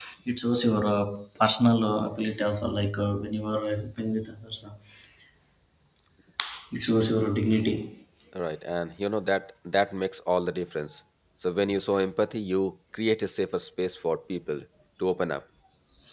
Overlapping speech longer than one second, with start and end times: none

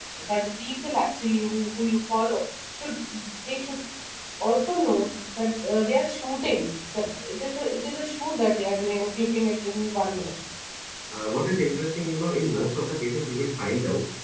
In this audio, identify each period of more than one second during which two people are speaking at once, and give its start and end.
none

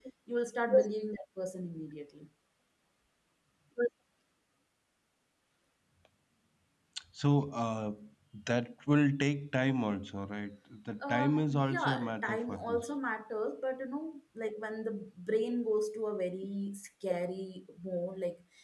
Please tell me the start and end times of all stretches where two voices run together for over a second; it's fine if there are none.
11.1-12.8

